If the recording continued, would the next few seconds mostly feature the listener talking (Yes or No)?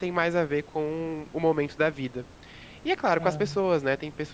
No